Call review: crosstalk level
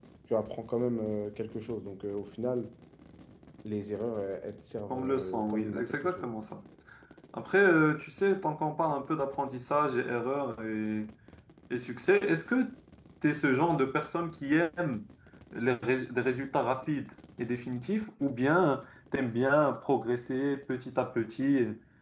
present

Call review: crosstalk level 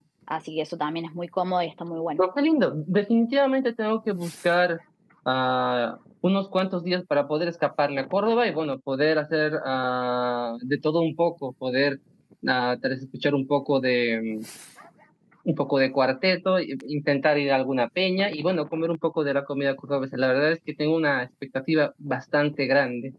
none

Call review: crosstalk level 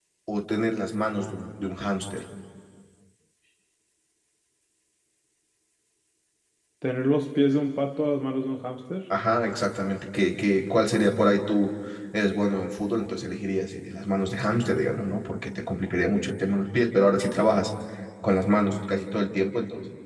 none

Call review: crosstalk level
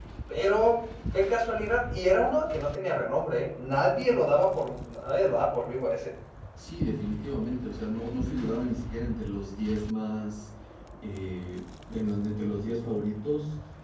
none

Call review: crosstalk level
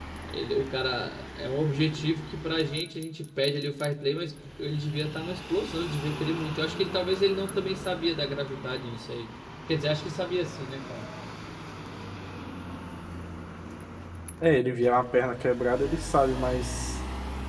none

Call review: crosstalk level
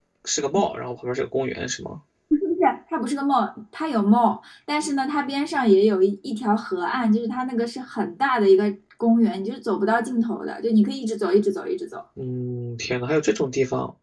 none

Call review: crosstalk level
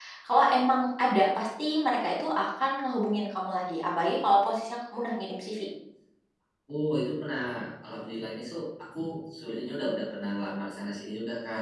none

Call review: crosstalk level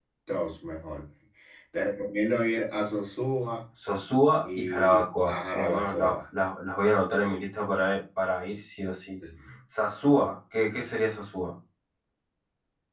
present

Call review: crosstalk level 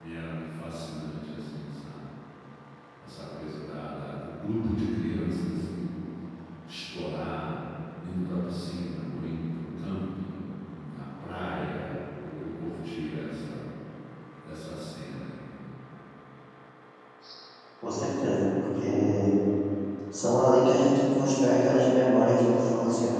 none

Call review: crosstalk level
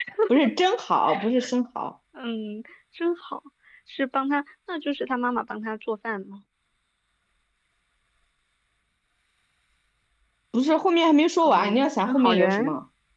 present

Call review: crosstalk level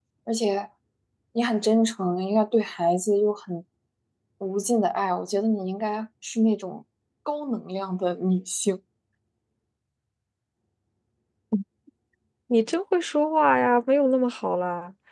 none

